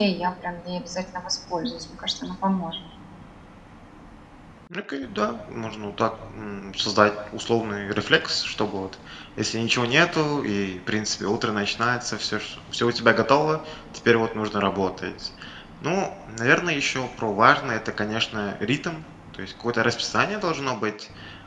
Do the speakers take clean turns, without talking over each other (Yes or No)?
Yes